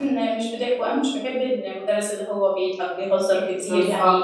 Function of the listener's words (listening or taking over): listening